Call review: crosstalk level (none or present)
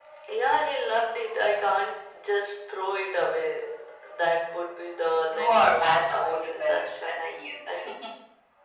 present